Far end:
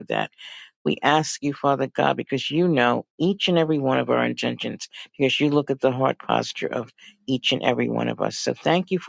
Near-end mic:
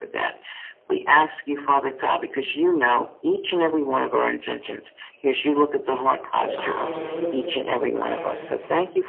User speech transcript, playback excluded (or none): your eyes, your wisdom, your kindness,